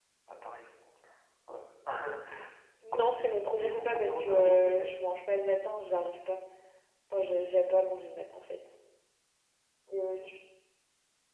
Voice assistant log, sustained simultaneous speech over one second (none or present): present